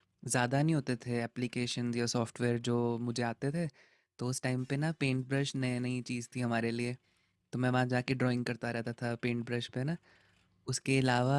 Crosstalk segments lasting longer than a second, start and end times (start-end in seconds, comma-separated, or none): none